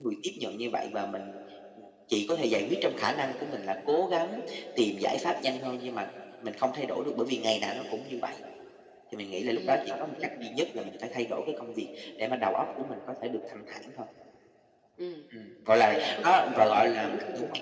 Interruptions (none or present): present